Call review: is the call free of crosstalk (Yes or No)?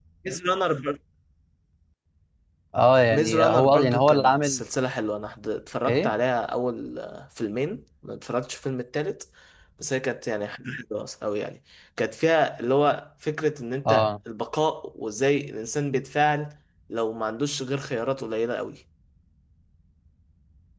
No